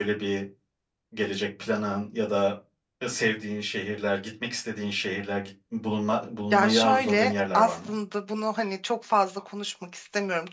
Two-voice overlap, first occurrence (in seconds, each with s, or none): 6.5 s